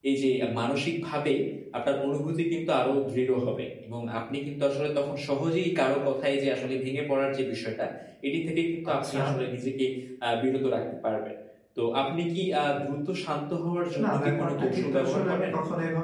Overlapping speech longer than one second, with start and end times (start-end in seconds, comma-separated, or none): 14.0-15.5